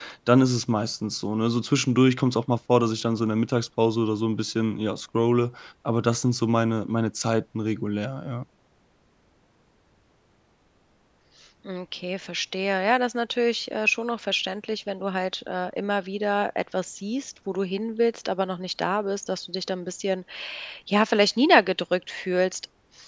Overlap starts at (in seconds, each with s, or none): none